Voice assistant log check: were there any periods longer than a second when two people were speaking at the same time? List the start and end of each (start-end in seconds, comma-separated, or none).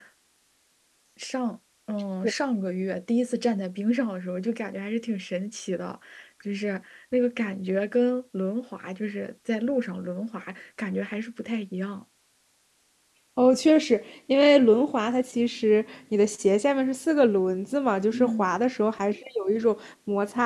none